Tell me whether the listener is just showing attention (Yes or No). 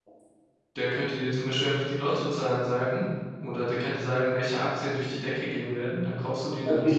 No